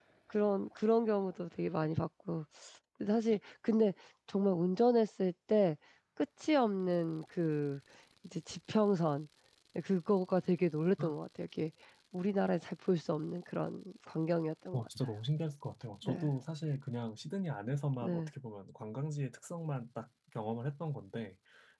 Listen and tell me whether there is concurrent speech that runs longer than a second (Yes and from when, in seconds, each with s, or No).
No